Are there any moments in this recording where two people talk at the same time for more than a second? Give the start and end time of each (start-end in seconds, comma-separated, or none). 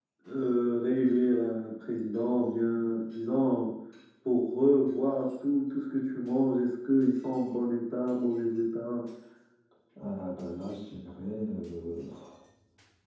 none